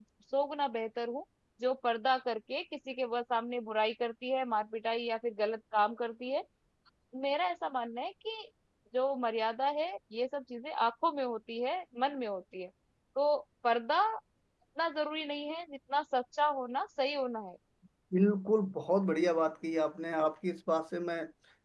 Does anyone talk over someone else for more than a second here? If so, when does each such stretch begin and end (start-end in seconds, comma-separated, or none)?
none